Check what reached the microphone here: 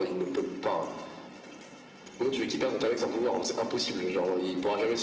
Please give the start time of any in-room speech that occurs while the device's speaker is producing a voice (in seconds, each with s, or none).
none